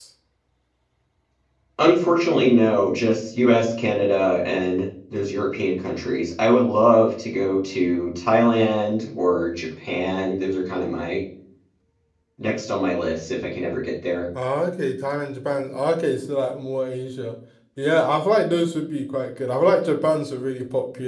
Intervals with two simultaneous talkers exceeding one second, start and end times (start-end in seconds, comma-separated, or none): none